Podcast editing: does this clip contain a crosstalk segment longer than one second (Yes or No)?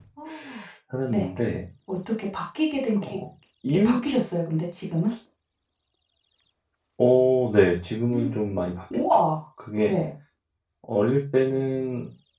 No